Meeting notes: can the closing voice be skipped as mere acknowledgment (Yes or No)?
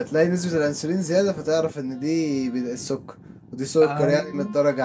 Yes